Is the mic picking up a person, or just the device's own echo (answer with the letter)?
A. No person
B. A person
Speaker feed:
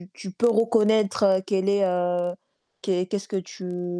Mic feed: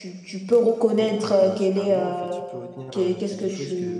B